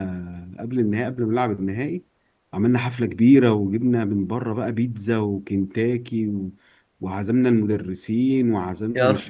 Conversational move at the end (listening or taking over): listening